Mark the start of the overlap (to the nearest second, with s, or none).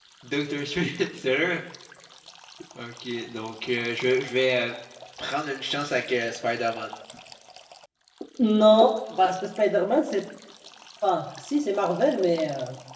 none